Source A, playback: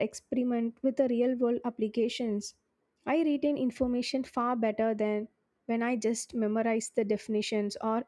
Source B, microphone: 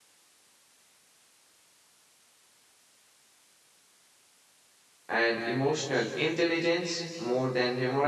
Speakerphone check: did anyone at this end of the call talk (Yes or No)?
Yes